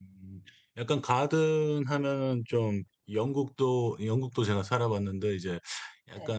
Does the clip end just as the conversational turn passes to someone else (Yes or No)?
No